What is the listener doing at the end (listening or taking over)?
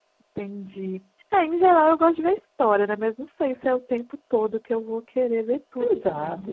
taking over